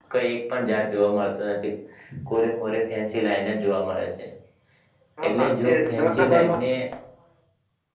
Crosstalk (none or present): present